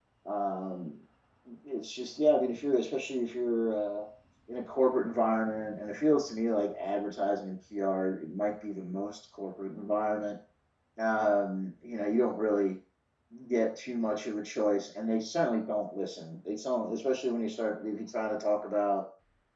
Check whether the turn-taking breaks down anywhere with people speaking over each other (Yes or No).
No